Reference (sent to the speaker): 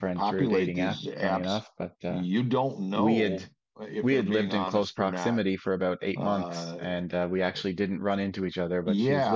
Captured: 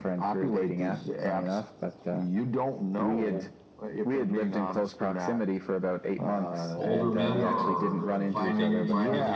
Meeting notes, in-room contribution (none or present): present